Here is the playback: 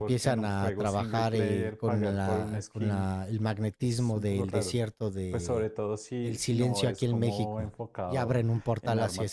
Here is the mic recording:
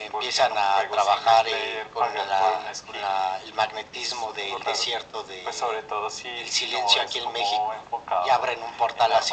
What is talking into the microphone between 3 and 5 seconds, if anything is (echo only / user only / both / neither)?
echo only